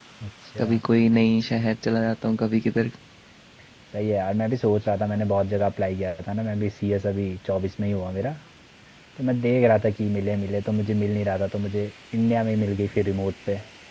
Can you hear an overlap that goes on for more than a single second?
No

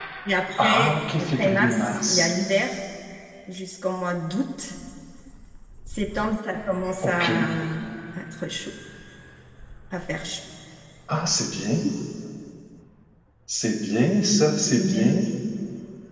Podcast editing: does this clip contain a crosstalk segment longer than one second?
Yes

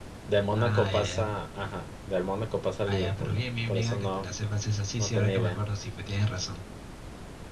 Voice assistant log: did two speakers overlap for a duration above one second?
Yes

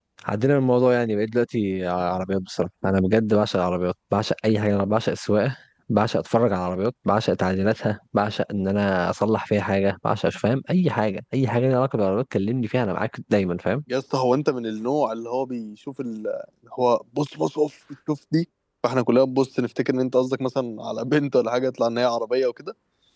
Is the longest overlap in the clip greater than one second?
No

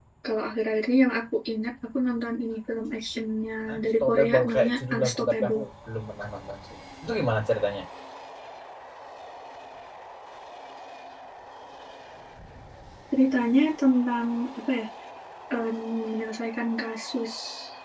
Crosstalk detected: Yes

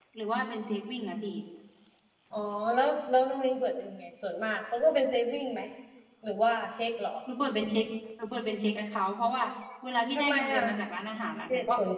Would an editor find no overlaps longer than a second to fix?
Yes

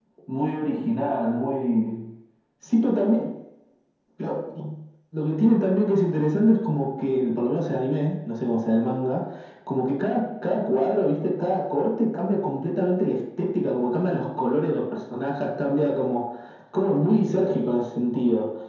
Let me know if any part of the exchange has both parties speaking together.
No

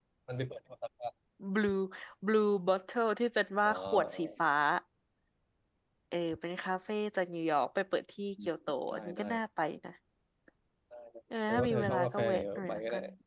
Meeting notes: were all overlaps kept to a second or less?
No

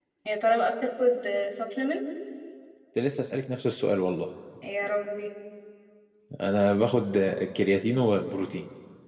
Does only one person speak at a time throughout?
Yes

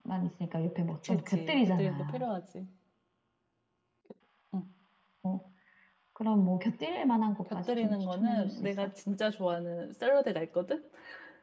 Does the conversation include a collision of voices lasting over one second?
Yes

